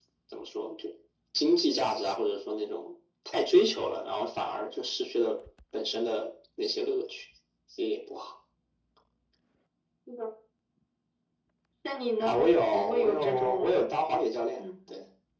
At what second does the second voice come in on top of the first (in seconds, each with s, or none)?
12.2 s